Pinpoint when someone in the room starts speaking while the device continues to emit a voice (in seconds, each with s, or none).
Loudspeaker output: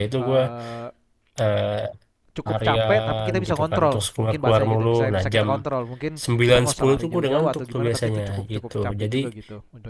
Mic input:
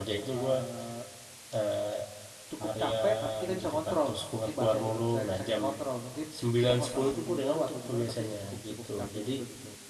none